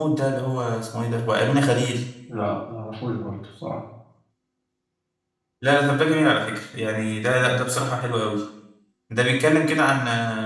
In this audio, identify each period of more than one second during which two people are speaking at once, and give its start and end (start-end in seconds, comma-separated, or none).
none